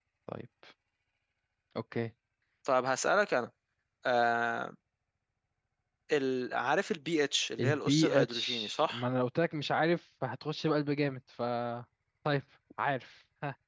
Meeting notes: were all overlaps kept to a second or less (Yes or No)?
No